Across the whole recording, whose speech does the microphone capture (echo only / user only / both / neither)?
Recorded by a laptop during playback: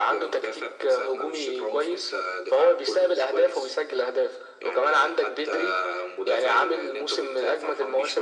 echo only